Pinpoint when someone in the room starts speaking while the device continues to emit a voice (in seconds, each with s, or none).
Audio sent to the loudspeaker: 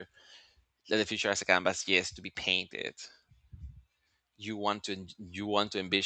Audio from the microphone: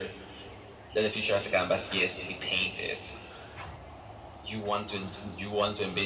none